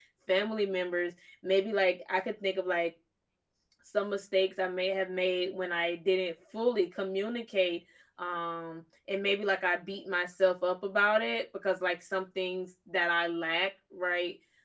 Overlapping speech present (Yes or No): No